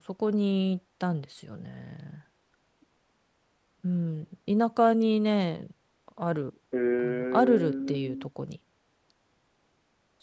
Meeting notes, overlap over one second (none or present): present